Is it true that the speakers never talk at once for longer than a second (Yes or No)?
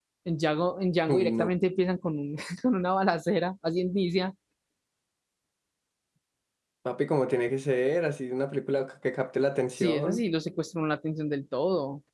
Yes